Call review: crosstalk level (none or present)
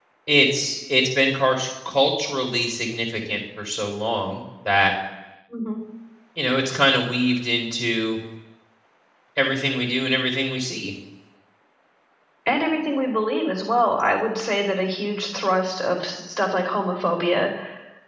none